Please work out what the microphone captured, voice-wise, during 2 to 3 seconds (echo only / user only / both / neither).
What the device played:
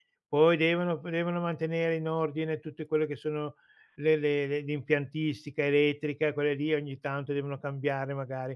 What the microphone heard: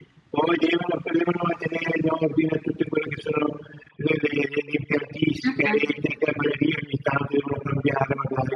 echo only